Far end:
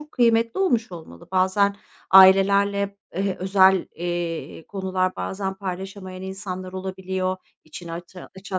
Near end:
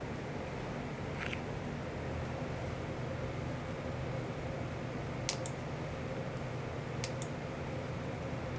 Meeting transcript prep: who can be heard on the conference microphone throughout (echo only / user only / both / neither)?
neither